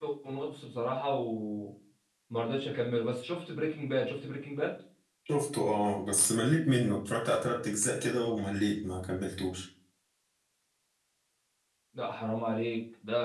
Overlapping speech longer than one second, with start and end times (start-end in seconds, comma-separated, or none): none